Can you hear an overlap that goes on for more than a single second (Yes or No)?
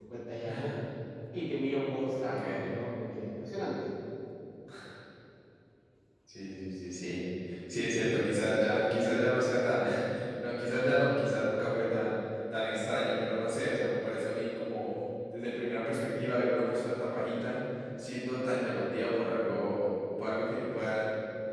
No